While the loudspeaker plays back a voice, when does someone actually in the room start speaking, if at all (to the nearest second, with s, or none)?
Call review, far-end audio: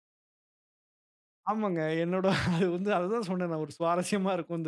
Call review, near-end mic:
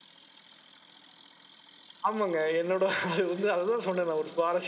none